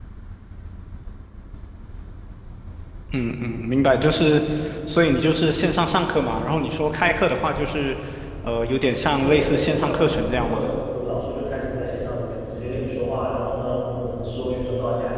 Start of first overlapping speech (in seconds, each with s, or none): 9.2 s